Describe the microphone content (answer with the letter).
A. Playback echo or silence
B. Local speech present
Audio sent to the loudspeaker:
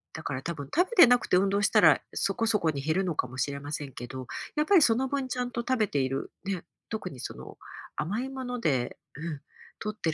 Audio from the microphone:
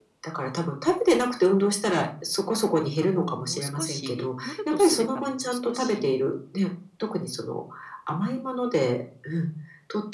B